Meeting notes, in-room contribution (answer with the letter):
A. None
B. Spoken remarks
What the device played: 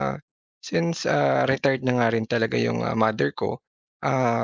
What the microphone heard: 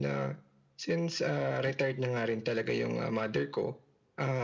A